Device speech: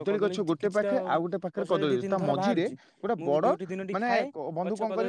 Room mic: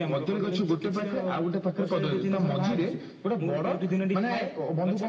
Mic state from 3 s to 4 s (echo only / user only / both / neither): echo only